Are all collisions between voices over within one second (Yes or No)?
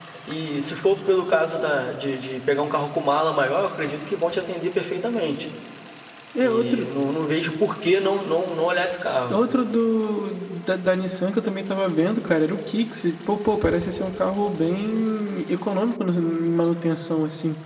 Yes